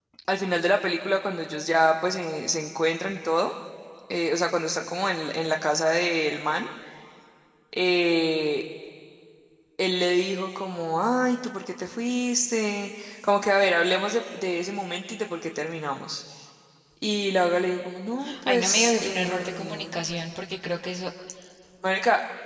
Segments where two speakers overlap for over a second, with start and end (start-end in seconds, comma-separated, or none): 18.5-20.0